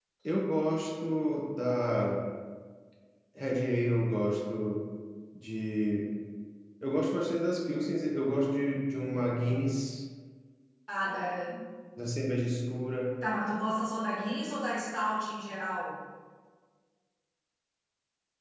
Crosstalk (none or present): none